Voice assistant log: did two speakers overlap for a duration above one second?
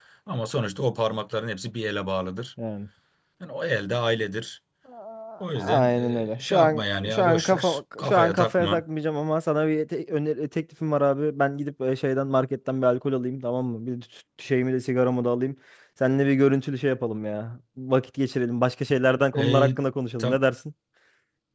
Yes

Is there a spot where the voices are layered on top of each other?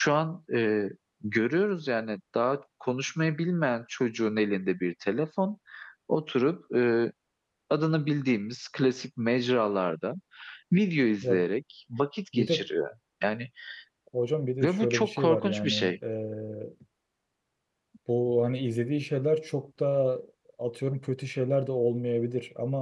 Yes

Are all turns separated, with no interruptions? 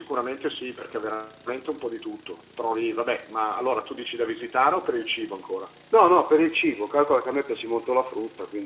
Yes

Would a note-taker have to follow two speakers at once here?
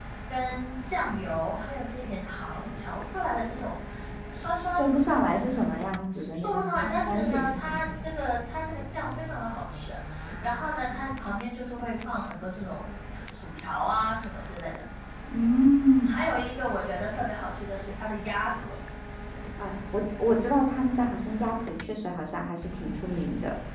Yes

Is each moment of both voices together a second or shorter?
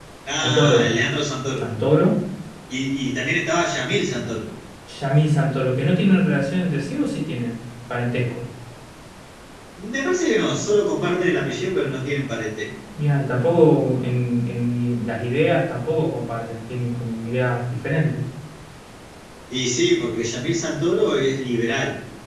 Yes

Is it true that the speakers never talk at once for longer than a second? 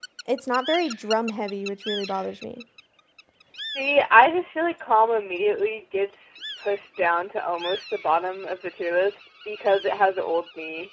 Yes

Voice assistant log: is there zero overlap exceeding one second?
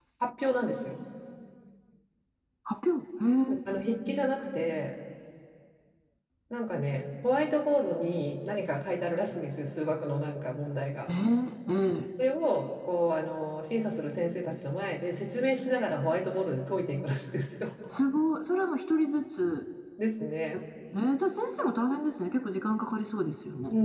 Yes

